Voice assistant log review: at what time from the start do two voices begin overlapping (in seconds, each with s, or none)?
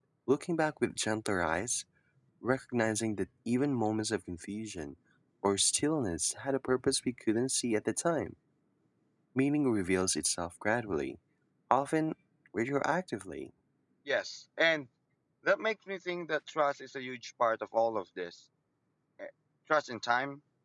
none